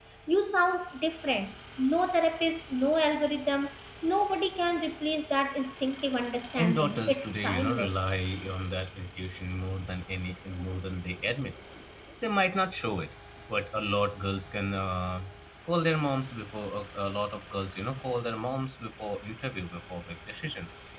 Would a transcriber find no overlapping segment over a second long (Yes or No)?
No